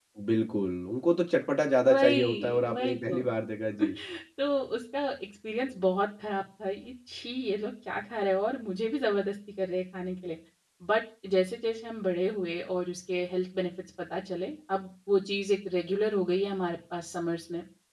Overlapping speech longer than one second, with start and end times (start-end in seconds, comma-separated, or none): 1.9-3.2